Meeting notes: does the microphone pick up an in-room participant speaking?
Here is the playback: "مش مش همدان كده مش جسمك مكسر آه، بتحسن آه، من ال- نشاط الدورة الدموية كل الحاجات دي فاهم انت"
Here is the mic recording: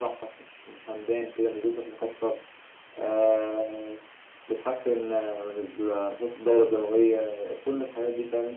No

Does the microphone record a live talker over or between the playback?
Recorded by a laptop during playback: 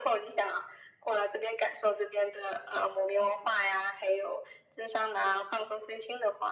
No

